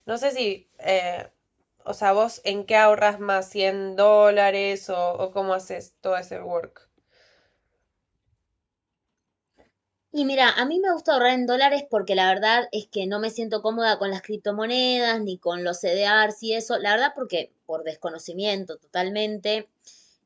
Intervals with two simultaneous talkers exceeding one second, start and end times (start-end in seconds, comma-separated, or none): none